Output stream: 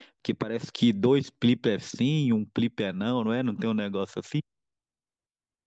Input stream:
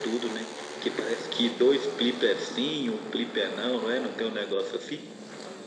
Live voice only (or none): none